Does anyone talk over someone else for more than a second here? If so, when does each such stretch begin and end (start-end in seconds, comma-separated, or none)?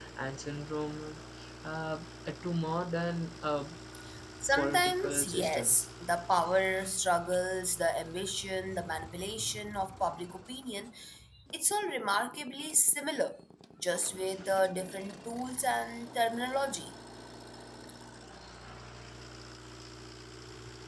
4.6-5.8